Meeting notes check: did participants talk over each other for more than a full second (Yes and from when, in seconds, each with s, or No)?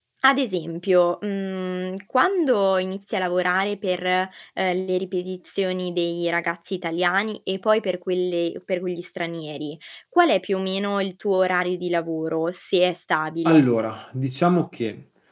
No